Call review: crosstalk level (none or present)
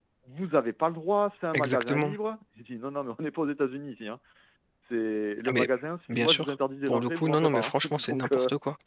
present